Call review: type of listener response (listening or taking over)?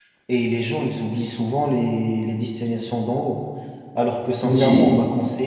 listening